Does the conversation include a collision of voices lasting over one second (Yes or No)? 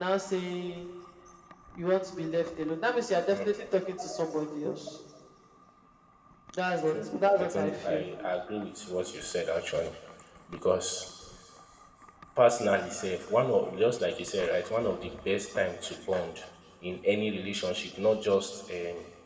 Yes